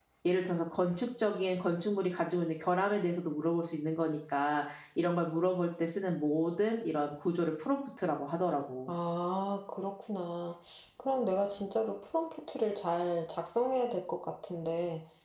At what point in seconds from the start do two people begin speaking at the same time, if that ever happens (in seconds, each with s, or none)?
none